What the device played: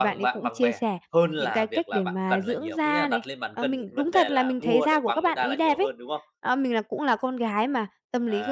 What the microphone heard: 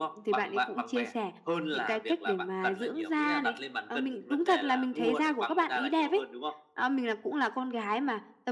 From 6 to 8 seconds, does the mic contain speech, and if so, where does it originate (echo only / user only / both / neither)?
echo only